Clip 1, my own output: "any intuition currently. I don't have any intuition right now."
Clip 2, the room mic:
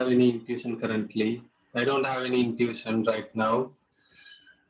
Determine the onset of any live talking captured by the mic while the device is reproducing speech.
none

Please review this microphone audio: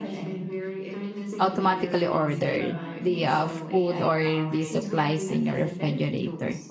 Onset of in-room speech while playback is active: 1.4 s

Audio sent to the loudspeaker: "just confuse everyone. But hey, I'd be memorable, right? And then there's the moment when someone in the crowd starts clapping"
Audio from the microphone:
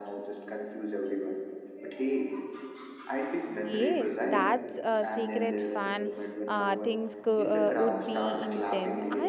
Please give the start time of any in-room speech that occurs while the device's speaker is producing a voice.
3.6 s

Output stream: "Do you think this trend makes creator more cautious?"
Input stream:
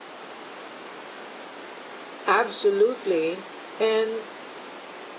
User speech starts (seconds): 2.3 s

